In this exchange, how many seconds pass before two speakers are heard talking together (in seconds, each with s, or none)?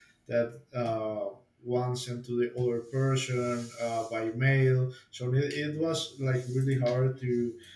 none